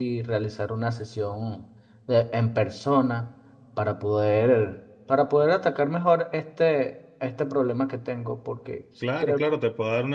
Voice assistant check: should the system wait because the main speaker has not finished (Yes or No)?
No